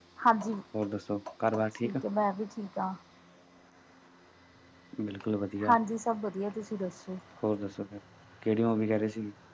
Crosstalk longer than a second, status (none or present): none